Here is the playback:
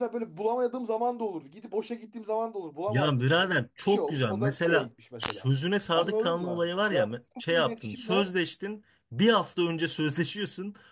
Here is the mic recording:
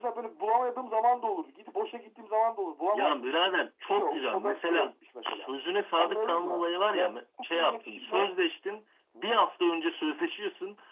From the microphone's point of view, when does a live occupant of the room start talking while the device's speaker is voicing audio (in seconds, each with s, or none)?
none